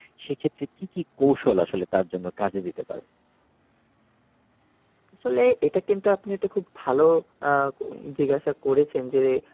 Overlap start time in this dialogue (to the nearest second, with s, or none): none